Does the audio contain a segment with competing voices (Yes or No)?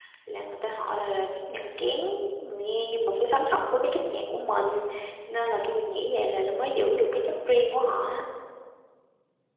No